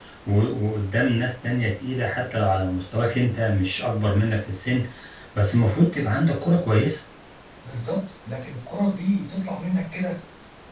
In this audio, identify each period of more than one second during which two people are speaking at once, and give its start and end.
none

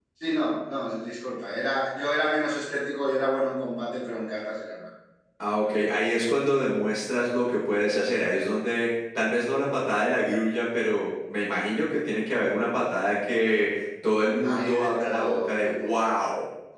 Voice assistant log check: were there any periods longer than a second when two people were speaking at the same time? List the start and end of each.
14.4-15.9

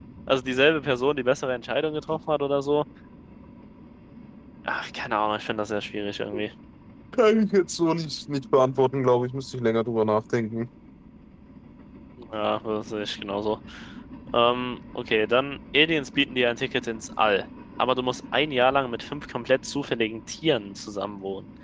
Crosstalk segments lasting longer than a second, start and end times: none

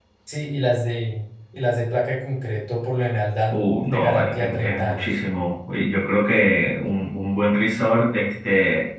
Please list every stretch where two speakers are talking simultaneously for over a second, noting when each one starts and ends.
3.5-5.2

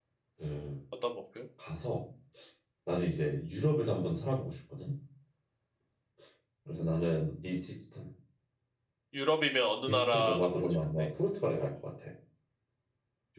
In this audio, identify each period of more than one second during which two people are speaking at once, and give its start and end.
9.9-11.1

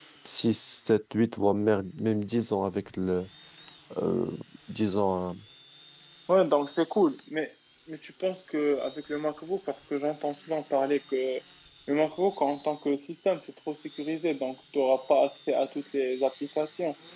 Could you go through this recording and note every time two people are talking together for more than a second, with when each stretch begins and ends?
none

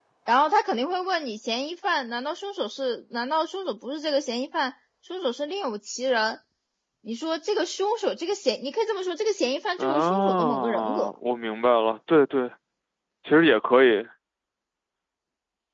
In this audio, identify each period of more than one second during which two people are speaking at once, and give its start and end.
9.8-11.1

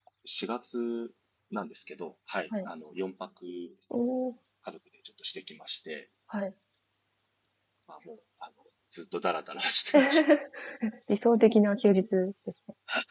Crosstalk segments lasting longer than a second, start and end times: none

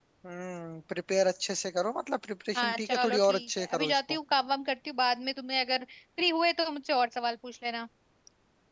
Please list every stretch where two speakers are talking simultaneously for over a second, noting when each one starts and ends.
2.6-4.2

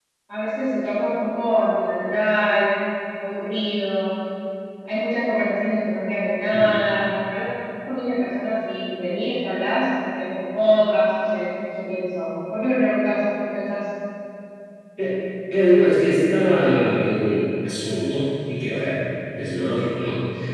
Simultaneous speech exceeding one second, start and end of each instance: none

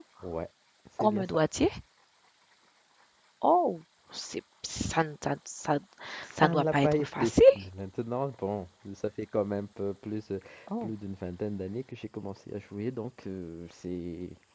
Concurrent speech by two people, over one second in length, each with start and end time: 6.3-7.6

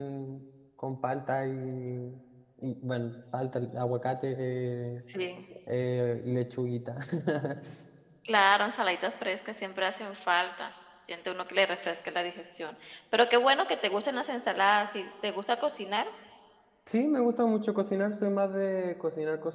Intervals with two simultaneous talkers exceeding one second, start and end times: none

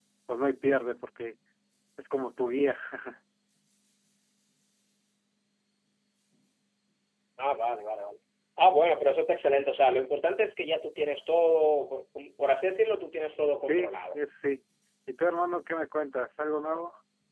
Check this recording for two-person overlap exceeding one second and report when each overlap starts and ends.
none

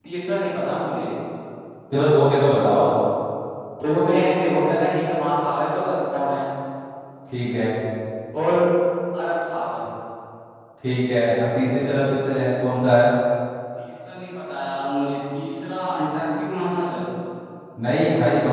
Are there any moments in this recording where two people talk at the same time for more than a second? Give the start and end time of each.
none

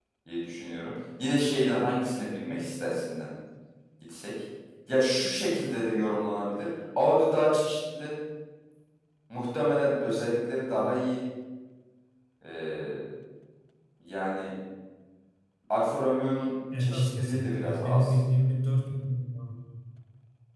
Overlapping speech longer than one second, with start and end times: 16.8-18.1

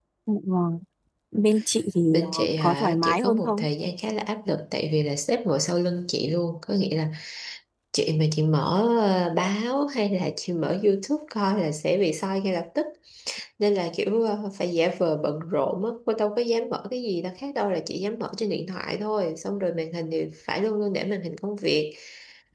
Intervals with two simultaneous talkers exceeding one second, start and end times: 2.1-3.6

